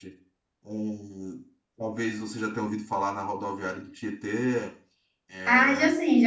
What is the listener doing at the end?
taking over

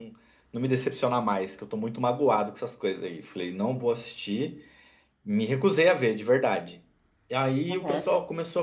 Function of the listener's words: listening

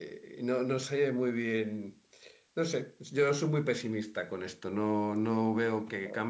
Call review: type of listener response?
listening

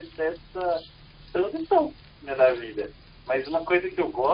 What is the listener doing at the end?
listening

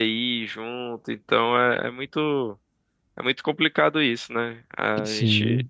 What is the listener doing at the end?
listening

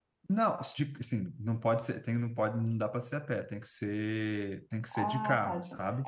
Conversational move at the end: taking over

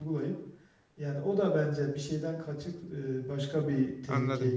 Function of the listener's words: taking over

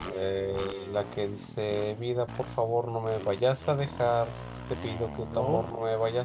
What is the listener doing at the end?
listening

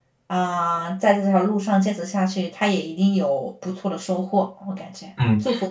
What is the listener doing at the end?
taking over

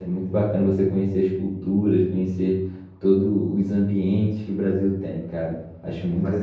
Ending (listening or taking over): taking over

